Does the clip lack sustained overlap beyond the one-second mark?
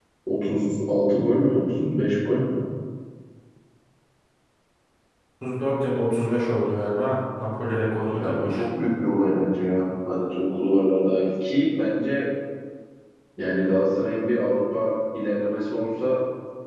Yes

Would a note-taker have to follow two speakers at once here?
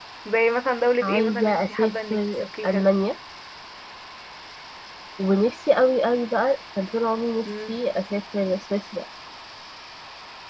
Yes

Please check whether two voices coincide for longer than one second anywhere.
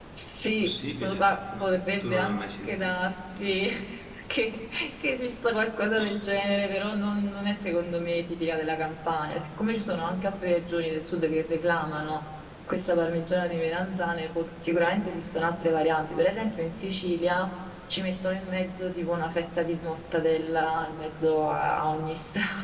Yes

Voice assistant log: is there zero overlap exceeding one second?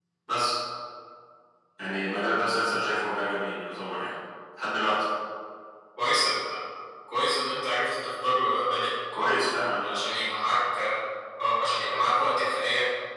Yes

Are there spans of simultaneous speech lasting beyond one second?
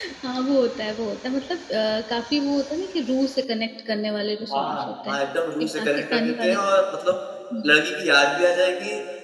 Yes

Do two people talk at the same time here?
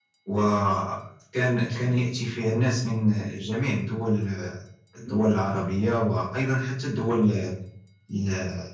No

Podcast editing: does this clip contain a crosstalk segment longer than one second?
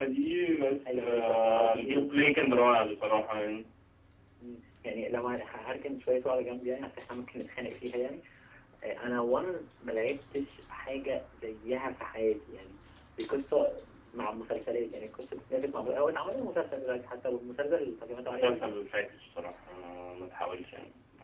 Yes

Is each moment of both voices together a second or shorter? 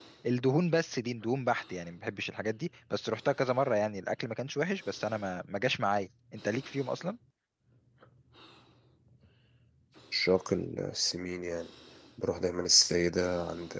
Yes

